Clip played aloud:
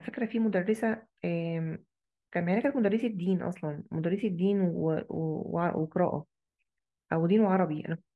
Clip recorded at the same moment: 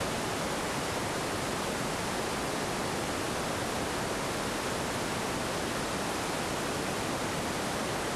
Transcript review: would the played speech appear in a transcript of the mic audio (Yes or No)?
No